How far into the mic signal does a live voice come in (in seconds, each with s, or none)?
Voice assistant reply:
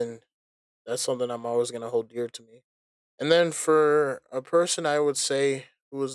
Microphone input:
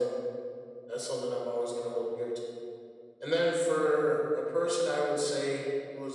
none